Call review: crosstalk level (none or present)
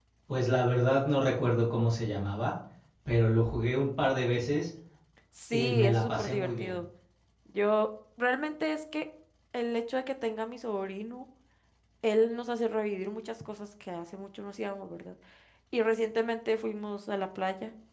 present